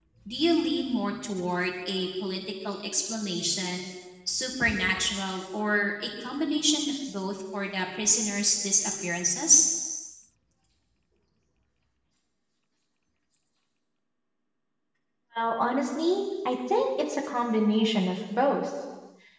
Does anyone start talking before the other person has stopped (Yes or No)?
No